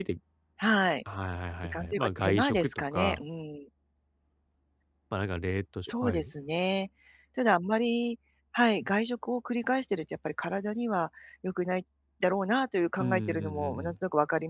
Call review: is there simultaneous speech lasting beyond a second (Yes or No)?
Yes